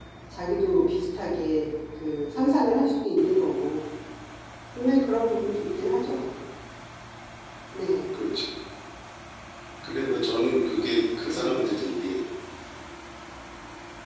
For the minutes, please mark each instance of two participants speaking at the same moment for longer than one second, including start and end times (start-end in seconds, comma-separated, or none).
none